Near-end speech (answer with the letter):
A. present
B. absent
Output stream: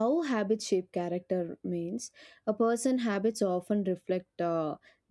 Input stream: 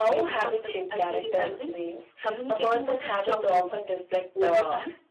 A